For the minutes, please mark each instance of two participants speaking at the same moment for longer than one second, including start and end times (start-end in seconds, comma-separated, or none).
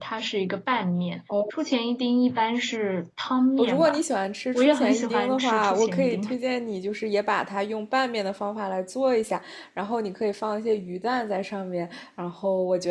4.5-6.3